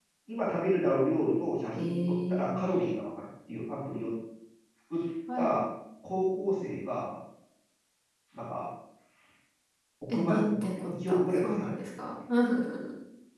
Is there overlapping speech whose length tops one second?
Yes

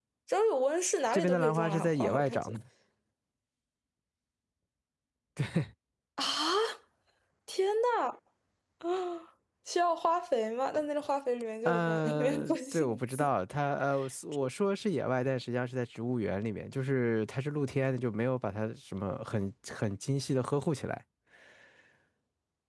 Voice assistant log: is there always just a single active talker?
No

